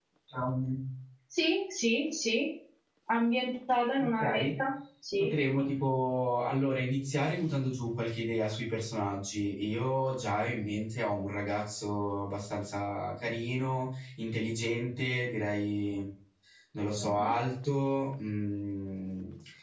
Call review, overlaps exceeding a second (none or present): none